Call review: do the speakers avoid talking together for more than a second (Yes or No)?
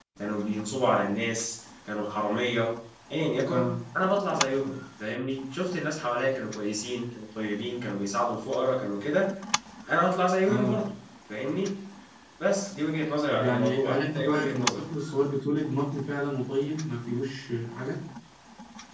No